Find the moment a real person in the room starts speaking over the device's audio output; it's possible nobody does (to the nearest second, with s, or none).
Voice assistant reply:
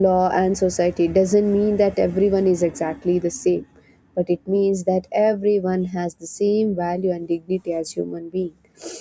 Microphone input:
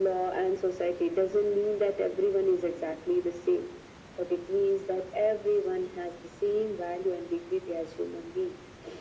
none